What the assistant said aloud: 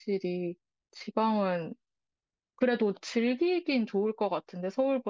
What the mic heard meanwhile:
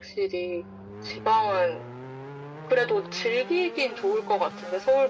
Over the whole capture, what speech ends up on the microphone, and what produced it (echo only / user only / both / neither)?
echo only